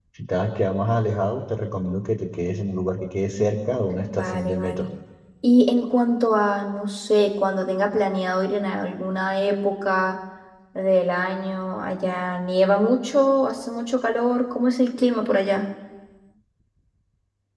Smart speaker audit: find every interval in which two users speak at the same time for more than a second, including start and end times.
3.4-4.8

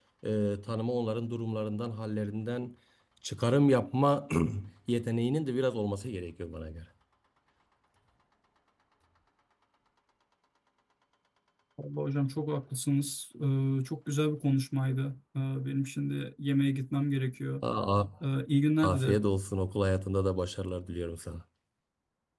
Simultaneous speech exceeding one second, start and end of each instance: none

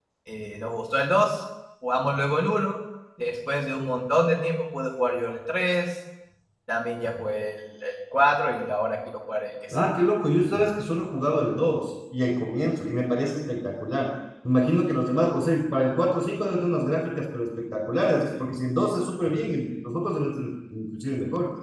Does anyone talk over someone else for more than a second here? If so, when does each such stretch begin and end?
none

